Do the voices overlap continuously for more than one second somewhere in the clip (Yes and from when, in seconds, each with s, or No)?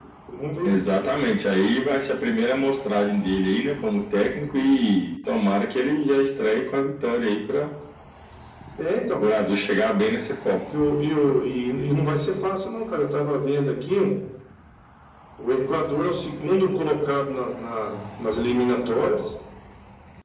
No